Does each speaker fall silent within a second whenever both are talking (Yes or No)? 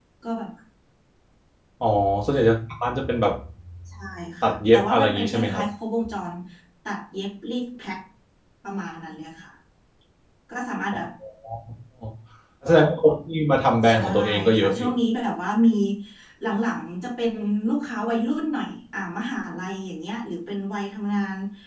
No